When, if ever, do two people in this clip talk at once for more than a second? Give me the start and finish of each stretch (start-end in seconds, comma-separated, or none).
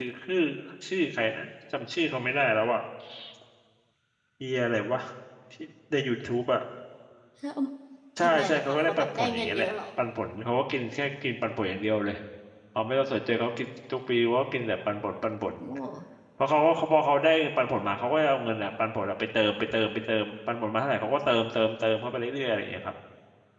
8.2-9.7